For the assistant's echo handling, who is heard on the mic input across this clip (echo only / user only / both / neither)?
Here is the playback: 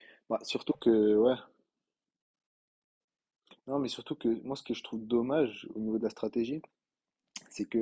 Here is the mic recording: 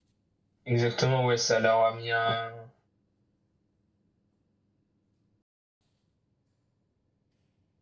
user only